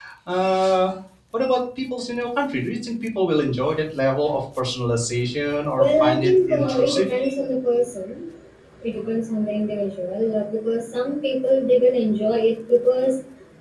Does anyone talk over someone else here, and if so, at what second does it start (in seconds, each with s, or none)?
5.7 s